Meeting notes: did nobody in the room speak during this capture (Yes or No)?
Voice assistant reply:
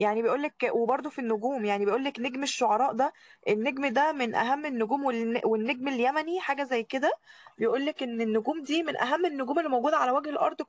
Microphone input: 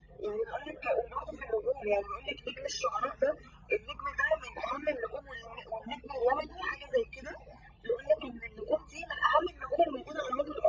Yes